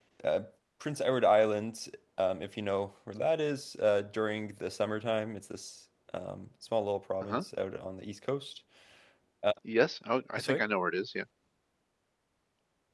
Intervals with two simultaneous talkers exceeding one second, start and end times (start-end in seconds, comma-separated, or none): none